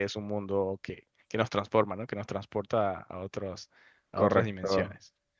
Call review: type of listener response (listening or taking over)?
taking over